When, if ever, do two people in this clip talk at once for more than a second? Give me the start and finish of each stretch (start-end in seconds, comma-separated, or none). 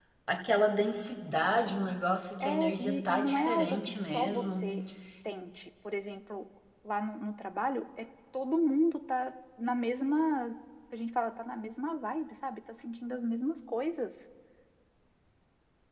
2.4-4.7